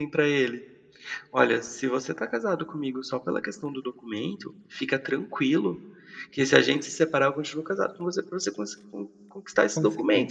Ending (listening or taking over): listening